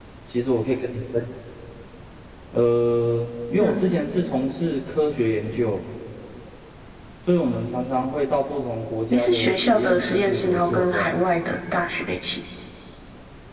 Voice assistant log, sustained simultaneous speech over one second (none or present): present